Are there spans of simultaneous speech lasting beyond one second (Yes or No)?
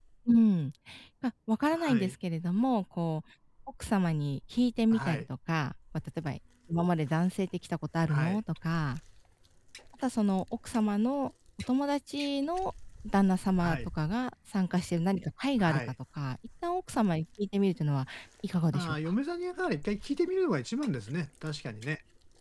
No